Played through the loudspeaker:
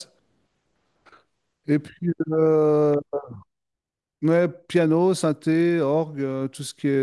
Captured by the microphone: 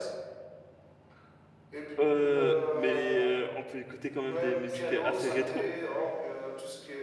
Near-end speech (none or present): present